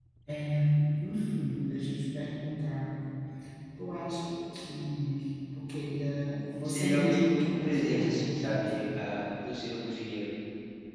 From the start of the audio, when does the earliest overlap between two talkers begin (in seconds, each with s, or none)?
6.6 s